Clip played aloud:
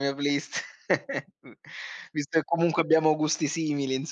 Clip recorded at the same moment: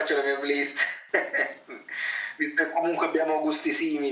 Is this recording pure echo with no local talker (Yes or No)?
Yes